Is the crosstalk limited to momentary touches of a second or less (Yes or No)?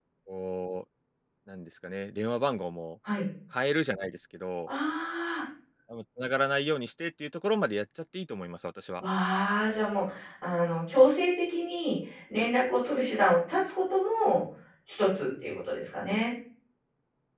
Yes